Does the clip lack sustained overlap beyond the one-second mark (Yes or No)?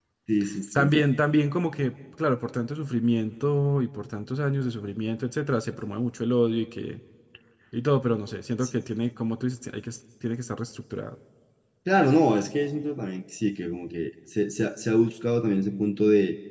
Yes